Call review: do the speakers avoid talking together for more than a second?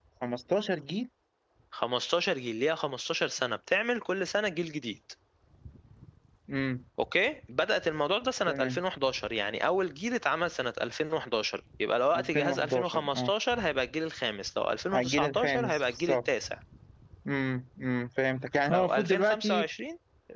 No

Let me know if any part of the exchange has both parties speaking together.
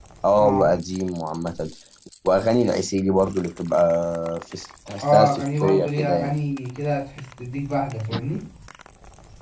Yes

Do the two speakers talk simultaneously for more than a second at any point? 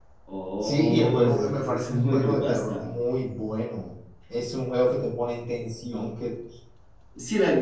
Yes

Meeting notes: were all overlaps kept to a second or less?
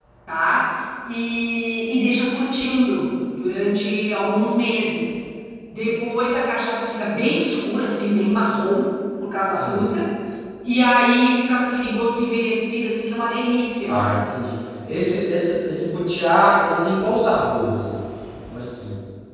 Yes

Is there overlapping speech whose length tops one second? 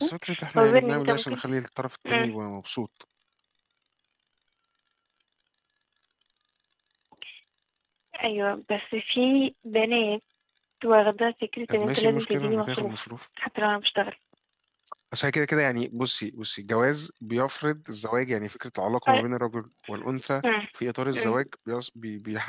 Yes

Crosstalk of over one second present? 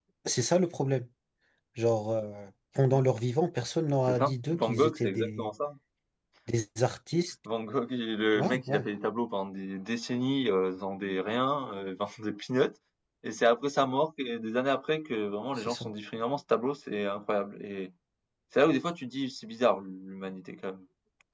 Yes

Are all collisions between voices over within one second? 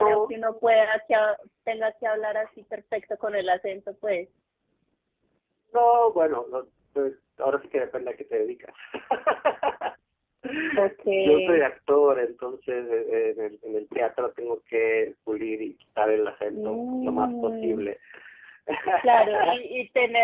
No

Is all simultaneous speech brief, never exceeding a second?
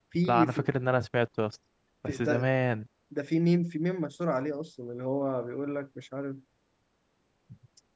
Yes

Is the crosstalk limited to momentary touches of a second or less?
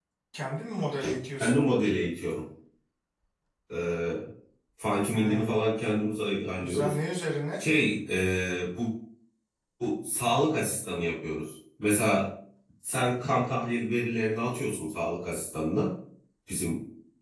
Yes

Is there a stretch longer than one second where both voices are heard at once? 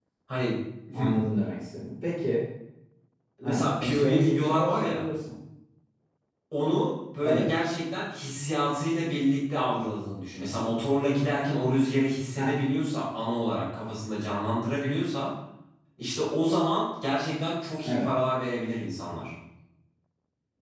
Yes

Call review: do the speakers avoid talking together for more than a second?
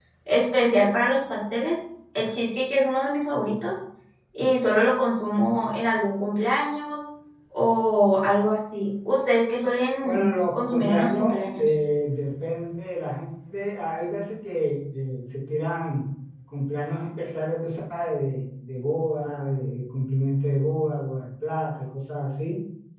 No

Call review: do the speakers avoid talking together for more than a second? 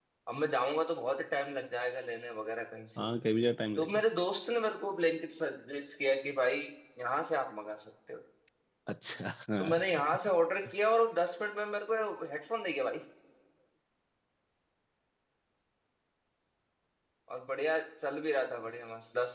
Yes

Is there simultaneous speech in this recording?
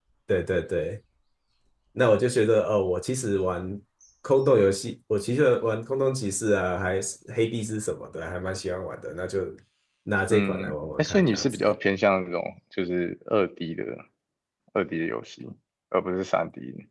Yes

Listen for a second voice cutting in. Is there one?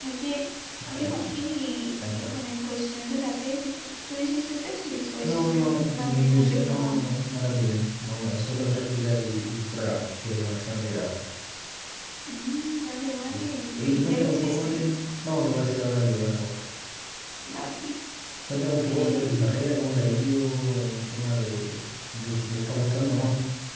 Yes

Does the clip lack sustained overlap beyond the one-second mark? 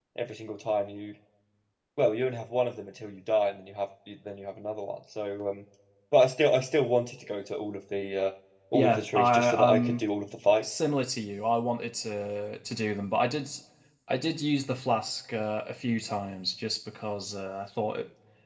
No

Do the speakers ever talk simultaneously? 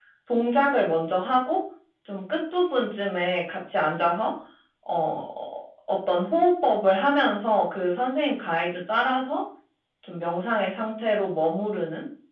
No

